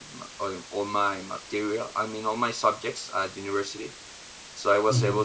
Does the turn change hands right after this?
No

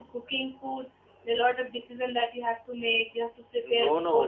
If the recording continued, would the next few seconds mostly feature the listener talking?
Yes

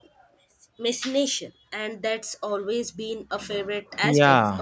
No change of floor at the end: No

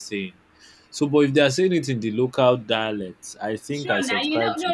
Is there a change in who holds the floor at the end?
Yes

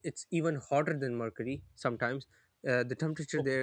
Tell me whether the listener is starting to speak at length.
No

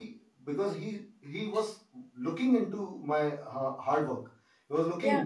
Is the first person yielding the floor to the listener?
No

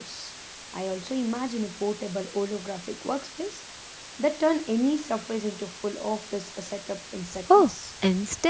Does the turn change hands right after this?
Yes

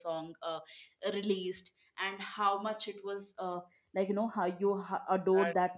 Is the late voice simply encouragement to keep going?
Yes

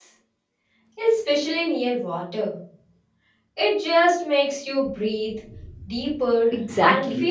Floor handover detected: Yes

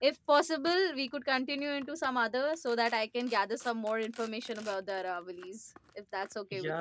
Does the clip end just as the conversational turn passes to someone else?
Yes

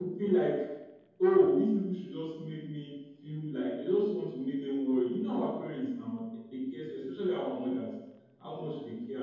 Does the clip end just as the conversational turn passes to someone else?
No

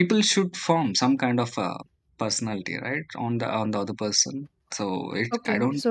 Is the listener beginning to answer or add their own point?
Yes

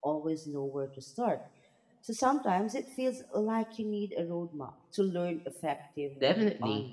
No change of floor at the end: No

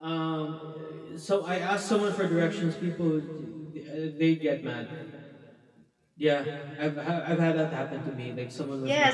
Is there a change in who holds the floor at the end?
Yes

